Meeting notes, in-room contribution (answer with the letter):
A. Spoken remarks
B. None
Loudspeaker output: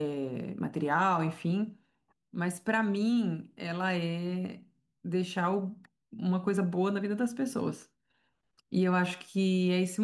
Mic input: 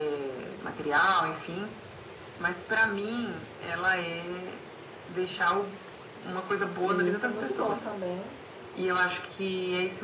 A